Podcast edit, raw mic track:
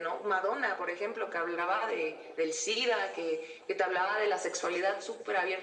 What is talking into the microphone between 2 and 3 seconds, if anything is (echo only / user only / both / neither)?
echo only